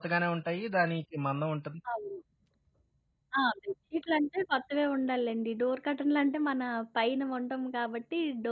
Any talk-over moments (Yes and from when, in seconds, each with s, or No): No